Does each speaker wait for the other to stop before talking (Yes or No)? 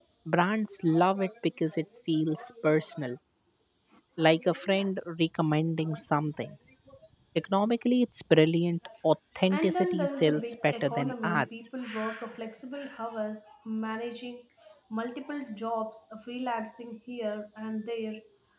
No